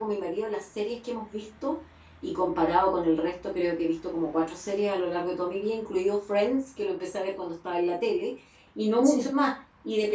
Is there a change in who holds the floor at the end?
No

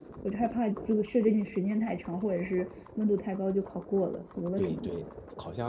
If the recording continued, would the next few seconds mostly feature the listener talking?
Yes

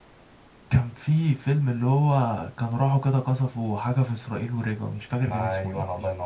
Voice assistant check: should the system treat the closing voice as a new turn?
Yes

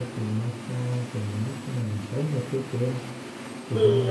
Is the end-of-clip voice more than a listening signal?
Yes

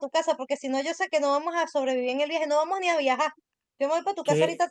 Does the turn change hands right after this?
No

